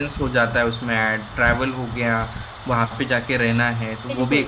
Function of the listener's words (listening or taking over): listening